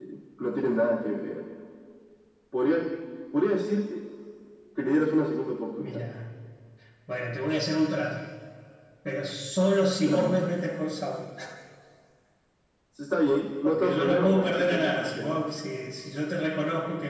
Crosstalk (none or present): present